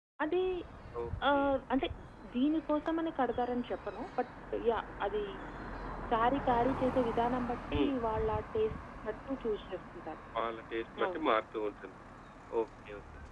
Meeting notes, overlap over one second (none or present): none